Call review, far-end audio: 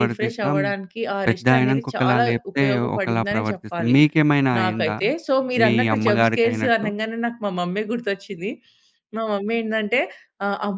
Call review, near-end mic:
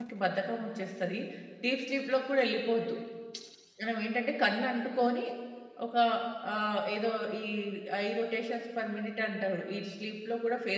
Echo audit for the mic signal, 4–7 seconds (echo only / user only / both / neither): user only